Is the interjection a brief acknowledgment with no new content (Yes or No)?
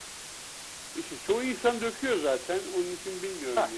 Yes